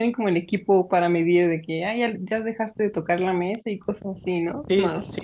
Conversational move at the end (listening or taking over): taking over